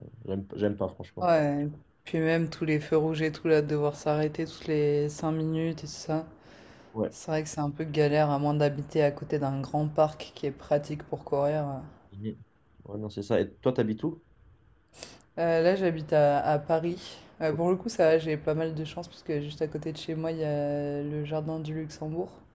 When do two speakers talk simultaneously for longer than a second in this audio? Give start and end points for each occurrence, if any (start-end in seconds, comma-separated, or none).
none